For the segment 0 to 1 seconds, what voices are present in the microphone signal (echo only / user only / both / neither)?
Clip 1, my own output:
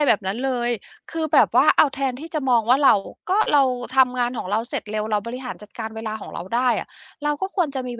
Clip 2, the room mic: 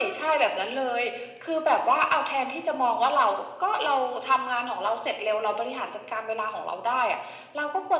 echo only